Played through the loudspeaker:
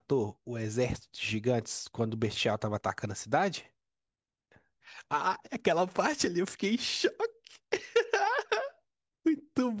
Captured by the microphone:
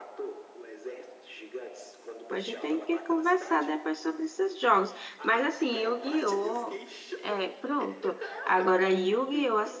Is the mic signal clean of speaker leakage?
No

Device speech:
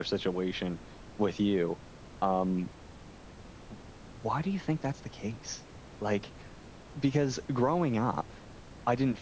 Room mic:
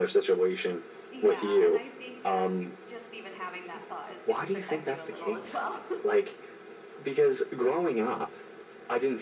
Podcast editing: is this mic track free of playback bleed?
No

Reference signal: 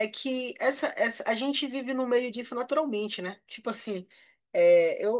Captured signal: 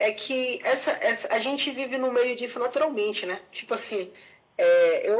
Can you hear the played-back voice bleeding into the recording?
Yes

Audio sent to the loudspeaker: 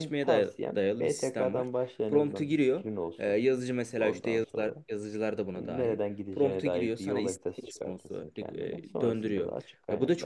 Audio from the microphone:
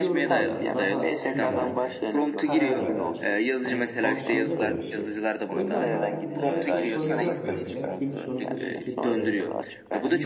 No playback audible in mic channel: No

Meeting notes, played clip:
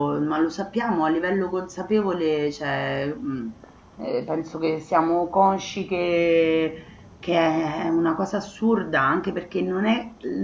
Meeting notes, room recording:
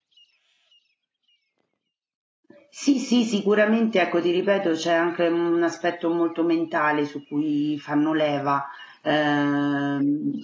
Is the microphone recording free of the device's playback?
Yes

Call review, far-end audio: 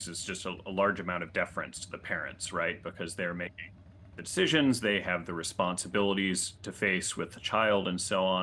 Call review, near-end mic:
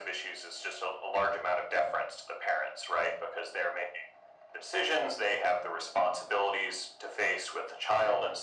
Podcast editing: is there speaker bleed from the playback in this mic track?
Yes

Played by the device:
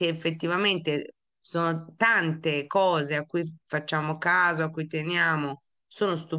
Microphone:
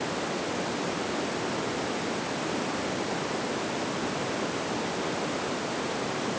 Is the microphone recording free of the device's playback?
Yes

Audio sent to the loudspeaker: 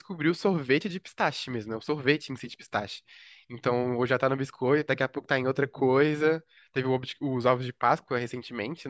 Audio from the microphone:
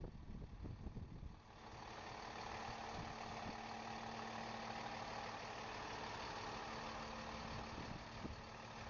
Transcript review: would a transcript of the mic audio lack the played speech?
Yes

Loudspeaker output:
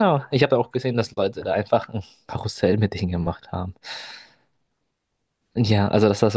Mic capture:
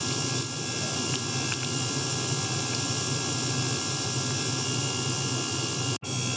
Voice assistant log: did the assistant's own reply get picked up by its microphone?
No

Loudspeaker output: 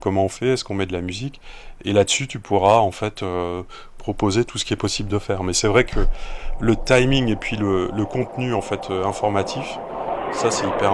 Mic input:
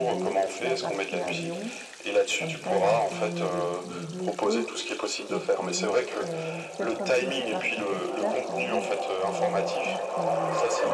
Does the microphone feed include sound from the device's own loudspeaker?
Yes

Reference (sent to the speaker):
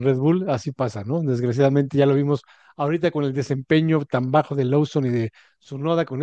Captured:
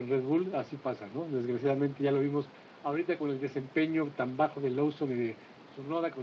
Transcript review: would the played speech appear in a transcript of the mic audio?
Yes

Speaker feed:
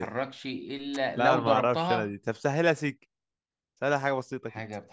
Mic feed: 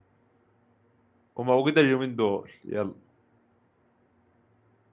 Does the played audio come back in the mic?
No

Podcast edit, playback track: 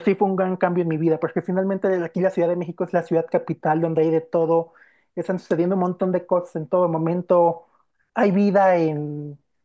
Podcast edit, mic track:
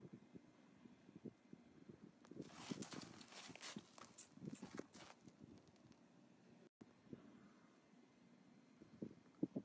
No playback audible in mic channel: Yes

